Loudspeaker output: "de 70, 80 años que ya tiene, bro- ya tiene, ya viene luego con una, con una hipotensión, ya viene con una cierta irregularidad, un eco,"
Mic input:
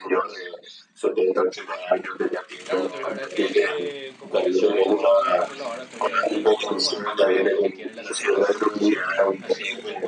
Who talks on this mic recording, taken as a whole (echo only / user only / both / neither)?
both